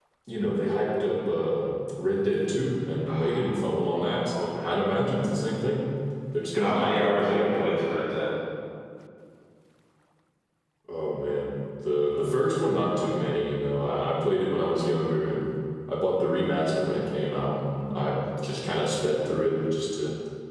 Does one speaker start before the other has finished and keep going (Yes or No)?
Yes